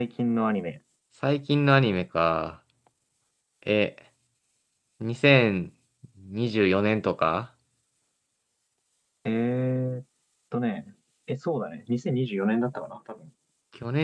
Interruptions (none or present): none